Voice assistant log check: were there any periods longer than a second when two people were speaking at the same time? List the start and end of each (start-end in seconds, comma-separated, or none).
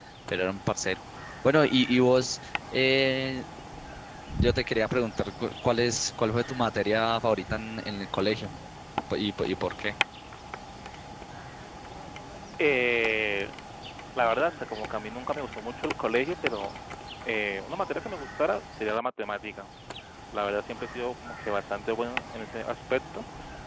none